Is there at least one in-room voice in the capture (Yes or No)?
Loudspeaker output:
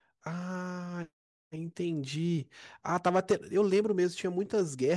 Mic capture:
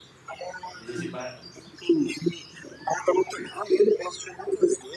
Yes